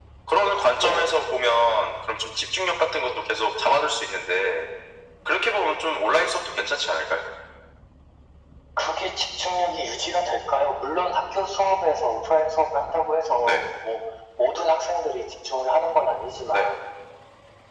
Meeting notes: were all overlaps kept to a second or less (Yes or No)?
Yes